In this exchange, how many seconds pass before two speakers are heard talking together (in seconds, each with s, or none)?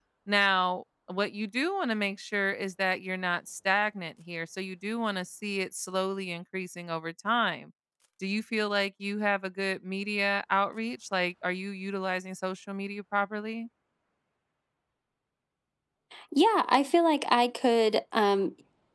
none